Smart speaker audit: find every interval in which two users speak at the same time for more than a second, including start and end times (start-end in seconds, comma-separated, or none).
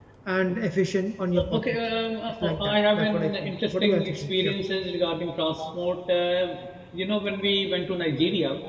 2.4-4.5